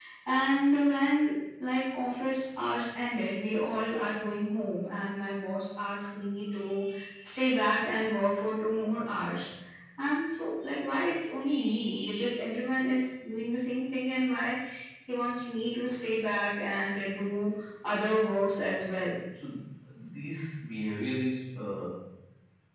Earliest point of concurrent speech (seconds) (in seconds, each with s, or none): none